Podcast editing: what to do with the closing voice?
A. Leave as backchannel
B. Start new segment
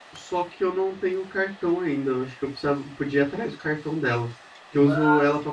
A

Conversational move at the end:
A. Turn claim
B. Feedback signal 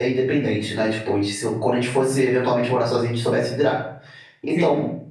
B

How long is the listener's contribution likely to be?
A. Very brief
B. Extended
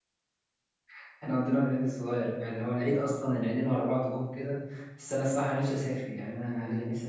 B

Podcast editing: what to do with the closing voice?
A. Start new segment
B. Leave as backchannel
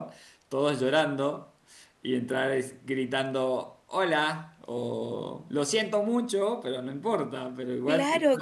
A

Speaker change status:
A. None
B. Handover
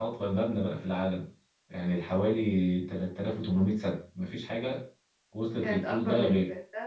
B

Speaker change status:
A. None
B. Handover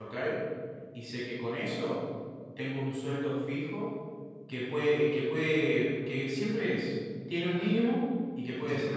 A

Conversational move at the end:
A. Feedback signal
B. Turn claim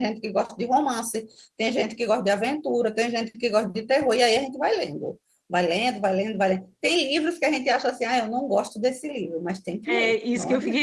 B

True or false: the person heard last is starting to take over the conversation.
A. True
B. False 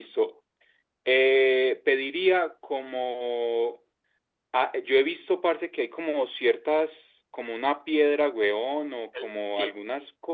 B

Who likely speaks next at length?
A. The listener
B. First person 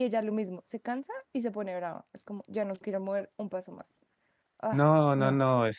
A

